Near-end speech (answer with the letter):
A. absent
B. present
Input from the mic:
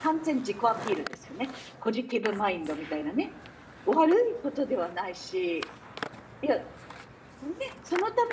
B